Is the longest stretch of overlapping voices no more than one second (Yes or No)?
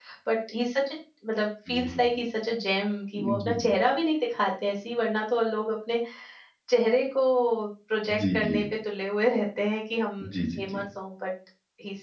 Yes